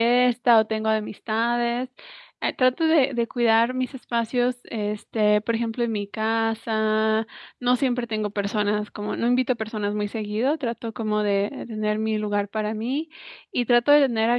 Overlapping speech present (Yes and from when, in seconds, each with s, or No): No